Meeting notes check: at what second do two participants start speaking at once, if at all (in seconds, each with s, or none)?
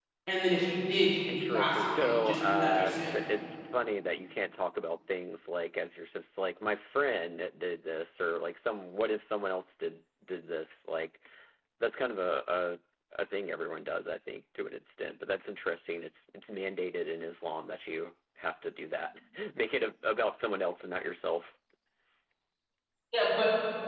1.3 s